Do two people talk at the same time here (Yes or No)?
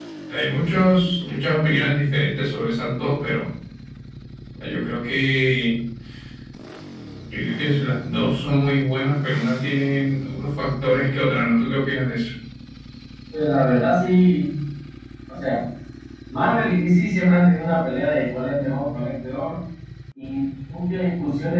No